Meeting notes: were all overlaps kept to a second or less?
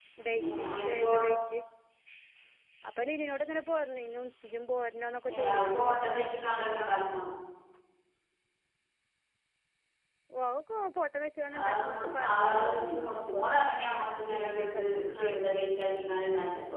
No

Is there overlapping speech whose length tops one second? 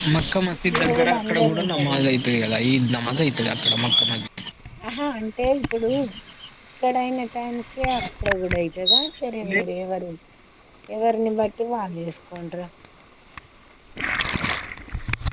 Yes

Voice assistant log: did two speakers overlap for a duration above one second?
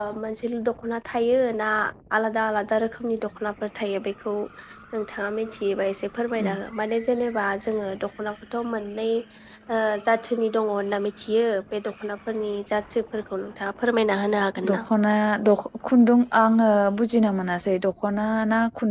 No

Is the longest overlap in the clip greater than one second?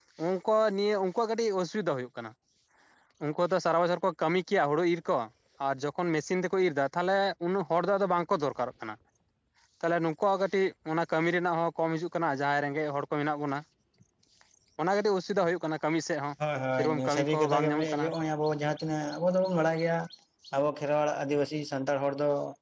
Yes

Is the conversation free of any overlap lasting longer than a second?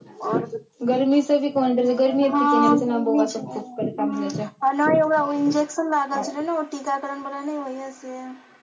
No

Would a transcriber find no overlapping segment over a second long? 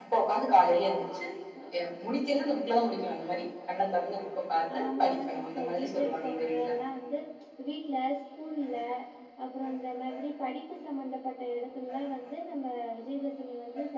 No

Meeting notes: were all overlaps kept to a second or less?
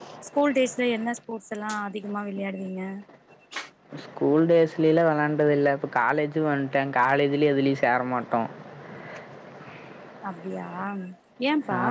Yes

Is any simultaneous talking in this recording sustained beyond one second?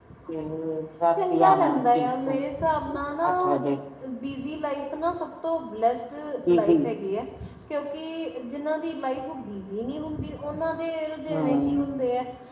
Yes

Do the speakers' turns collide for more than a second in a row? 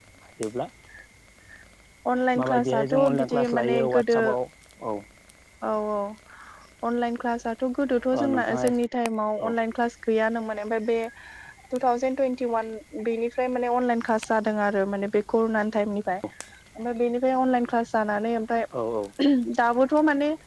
Yes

